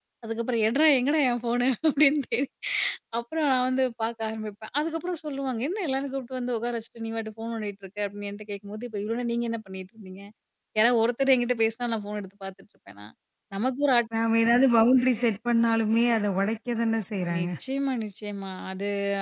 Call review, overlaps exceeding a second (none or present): none